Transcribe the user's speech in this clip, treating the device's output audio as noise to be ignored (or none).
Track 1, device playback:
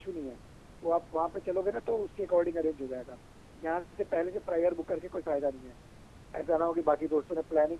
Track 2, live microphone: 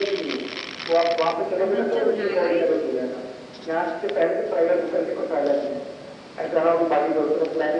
एडवेंचर हो जाएगा ये तो